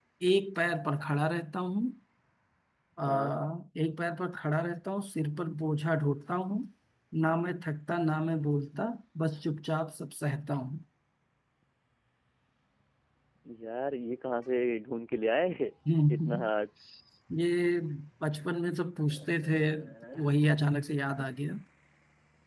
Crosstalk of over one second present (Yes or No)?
No